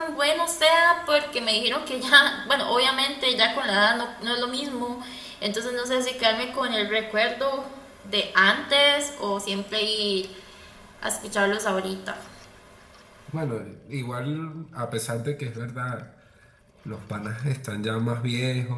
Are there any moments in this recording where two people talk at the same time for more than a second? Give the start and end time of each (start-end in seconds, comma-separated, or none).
none